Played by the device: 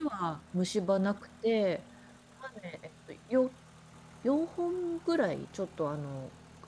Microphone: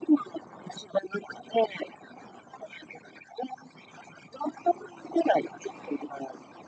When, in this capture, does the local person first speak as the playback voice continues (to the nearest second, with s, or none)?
none